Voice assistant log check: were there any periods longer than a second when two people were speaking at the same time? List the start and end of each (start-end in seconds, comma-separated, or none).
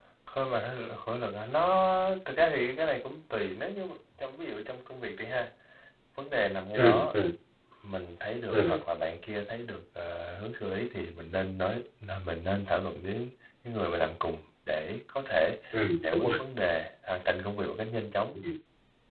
none